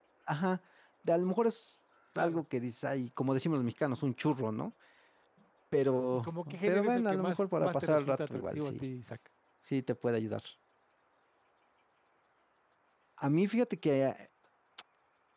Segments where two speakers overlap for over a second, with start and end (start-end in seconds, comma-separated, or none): 6.1-8.8